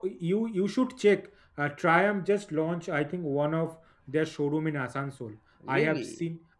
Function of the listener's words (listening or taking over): listening